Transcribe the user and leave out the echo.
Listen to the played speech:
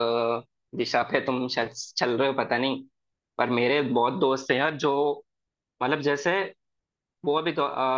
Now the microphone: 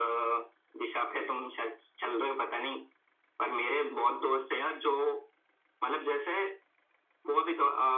none

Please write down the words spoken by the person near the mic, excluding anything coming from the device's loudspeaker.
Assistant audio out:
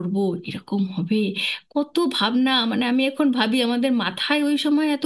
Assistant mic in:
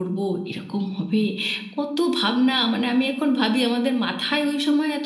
none

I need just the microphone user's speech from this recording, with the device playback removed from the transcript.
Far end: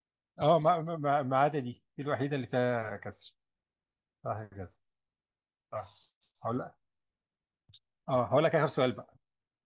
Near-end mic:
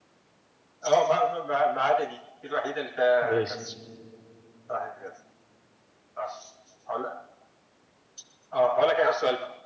ماشي

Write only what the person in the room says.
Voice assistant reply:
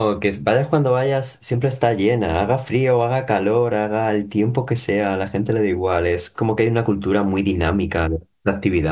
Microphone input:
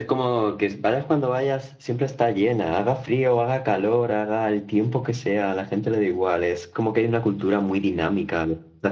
none

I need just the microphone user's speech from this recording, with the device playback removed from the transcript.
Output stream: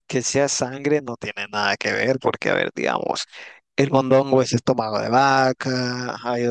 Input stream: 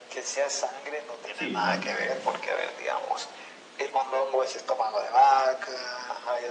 Sí, no, no quería mal.

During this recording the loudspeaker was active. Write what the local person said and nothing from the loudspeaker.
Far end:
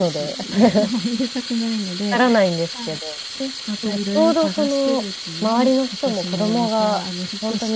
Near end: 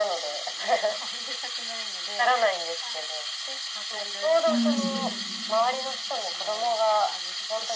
うん。

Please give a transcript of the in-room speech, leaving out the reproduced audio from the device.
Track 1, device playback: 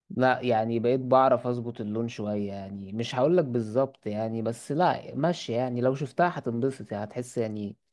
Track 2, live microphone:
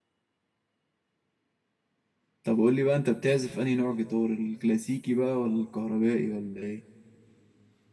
طب قول لي بقى انت بتعزف انهي نوع جيتار الكلاسيكي بقى ولا الكهربائي ولا ايه

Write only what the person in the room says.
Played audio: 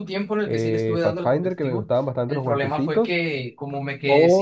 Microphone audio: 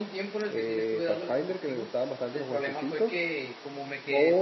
none

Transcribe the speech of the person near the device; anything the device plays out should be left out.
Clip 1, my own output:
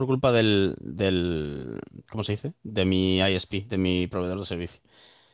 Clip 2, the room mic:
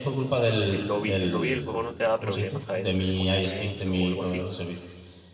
El lobby, el lobby del juego no te da problemas a veces que se ponía lento o algo así.

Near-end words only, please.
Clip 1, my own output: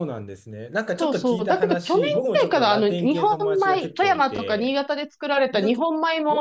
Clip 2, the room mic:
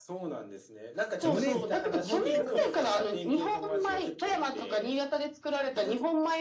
?5 年。おお、結構、

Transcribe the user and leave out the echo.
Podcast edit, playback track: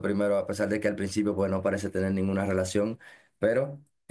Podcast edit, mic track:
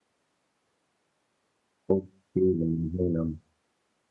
Uf, Sí, me imagino.

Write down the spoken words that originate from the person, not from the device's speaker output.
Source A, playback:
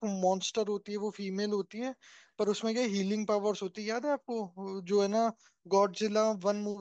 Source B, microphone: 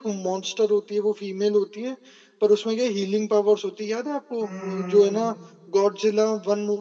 हम्म हम्म, हम्म,

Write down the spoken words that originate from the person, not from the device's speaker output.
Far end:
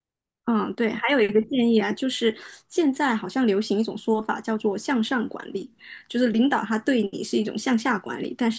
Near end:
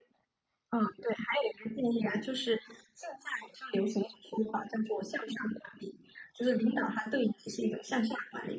none

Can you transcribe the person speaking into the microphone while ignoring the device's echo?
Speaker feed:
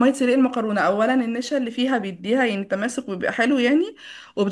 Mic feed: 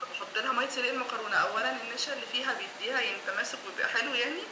none

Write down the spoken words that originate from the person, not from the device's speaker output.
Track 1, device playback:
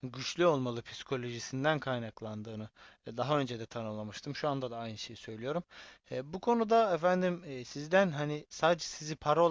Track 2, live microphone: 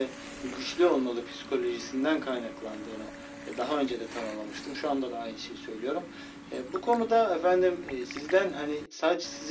none

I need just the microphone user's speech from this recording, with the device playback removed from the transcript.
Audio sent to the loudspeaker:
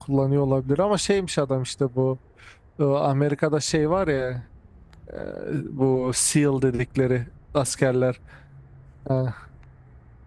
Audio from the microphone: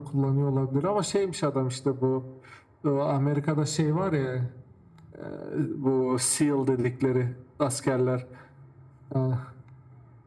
none

